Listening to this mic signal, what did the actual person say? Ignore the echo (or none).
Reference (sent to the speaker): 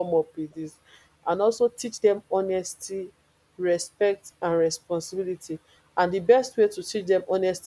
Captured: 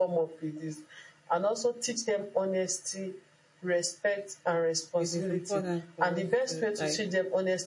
it is important for us to like